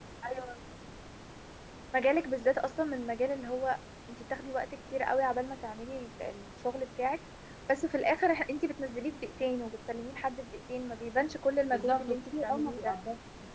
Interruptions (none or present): present